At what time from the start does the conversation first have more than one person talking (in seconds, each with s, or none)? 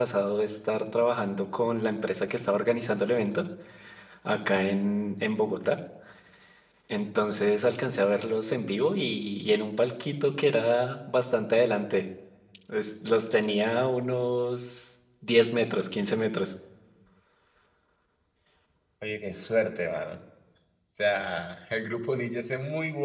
none